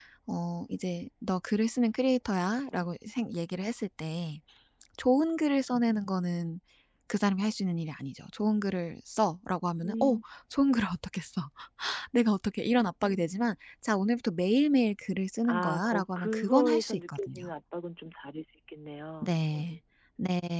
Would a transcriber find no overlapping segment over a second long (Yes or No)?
No